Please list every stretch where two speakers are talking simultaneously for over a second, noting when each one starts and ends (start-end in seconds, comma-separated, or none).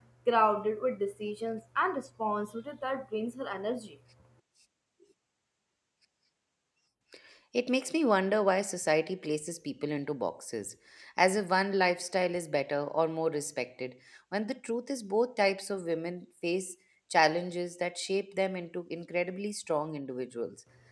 none